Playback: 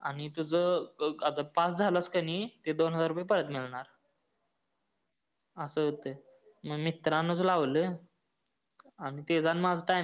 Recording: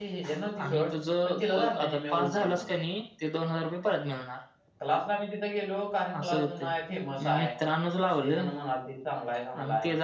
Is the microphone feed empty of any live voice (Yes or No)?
No